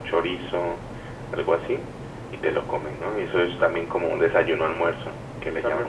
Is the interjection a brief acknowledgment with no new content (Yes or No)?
No